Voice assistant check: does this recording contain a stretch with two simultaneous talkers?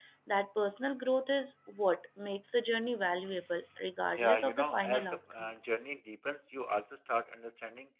Yes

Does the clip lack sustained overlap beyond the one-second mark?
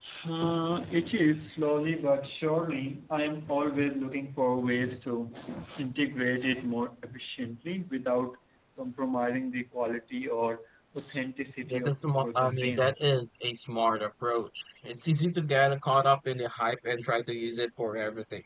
No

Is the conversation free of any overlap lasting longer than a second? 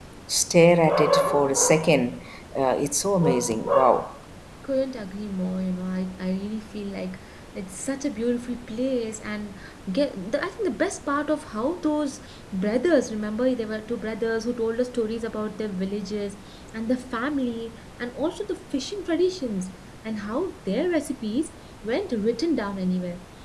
Yes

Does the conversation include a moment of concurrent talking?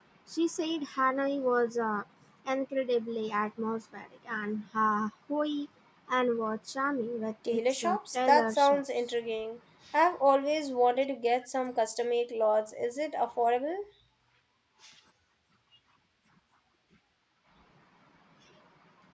Yes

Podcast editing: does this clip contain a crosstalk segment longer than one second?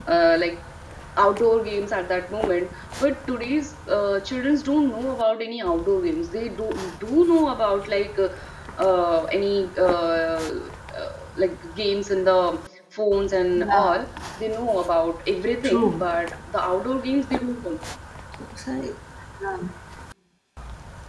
No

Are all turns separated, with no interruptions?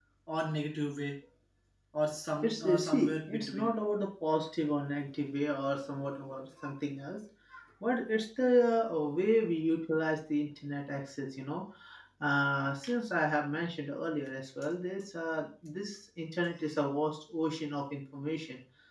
No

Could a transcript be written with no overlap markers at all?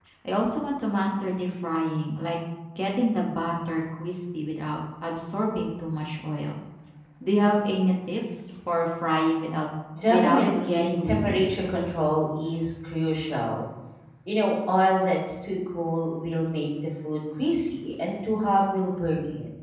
No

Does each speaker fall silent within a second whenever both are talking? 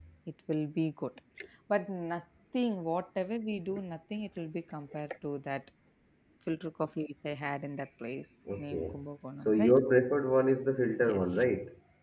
Yes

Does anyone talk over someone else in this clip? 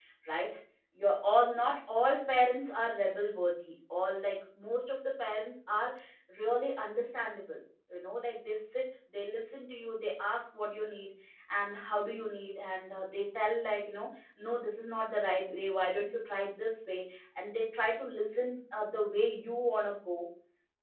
No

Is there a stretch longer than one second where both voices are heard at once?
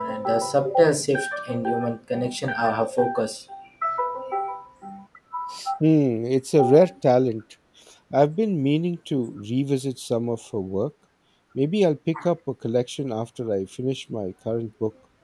No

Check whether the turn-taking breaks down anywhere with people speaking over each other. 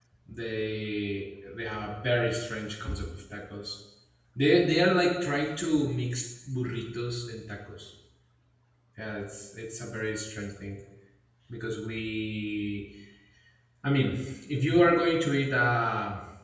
No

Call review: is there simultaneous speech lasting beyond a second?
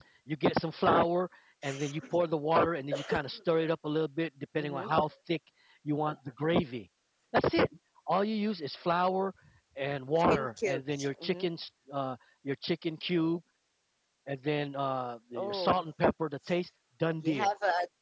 Yes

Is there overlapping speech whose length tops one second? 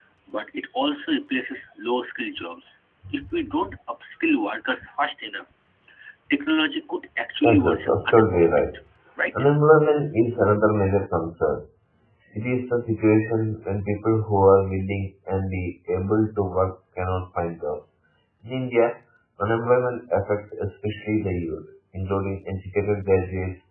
Yes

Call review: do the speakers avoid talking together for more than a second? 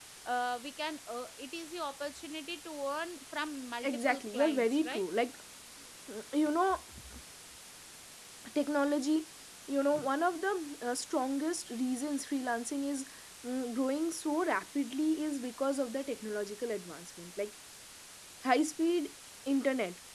No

